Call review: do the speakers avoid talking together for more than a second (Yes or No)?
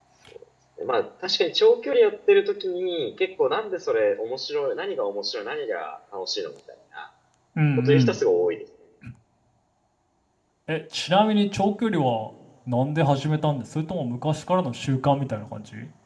Yes